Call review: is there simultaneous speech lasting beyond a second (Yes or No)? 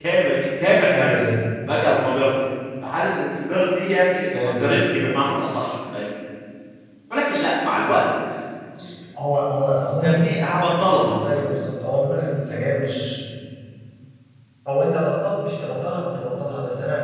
No